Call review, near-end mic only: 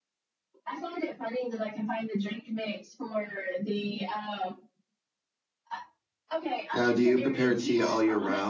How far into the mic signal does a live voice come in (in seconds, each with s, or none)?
6.7 s